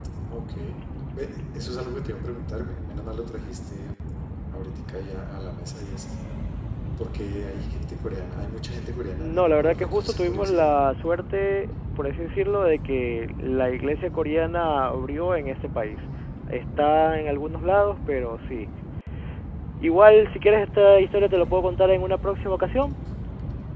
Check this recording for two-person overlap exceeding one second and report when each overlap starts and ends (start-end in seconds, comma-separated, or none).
9.2-10.7